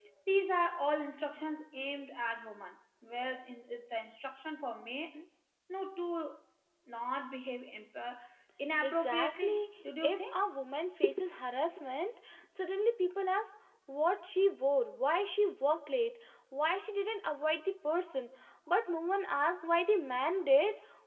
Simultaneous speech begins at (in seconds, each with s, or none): 8.8 s